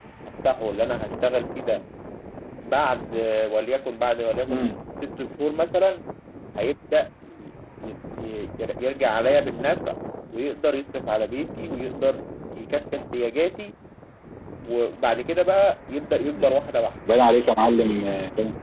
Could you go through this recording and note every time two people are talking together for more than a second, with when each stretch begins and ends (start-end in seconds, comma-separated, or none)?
none